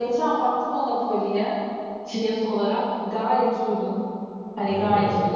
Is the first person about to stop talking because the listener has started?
No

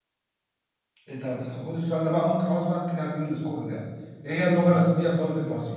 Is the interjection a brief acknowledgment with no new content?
Yes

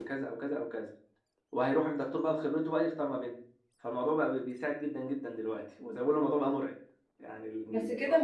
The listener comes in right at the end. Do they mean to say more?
Yes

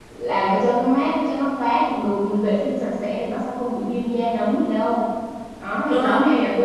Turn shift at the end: No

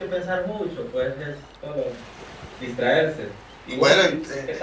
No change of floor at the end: No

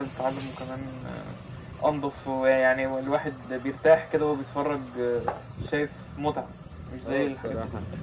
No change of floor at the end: No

